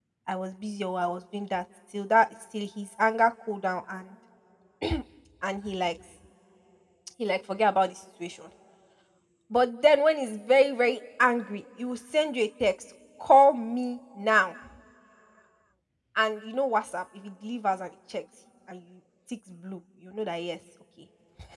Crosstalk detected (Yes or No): No